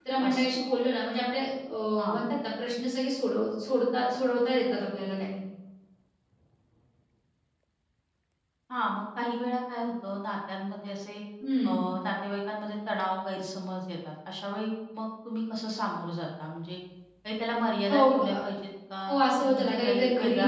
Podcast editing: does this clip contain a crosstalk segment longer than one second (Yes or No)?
Yes